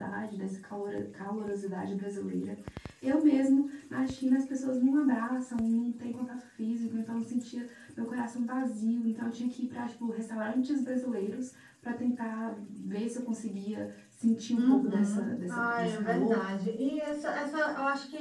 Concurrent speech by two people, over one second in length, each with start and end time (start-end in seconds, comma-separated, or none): 14.6-16.5